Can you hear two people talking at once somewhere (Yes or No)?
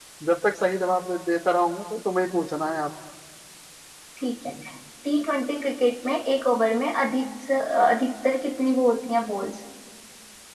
No